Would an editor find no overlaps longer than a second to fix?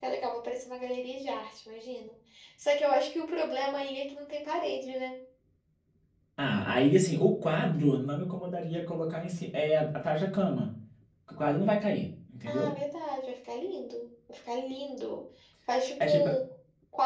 Yes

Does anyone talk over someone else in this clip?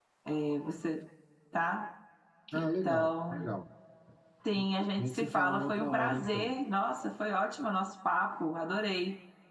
Yes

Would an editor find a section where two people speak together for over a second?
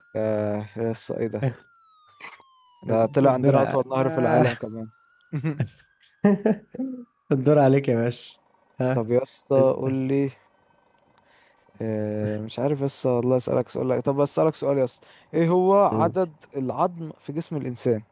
Yes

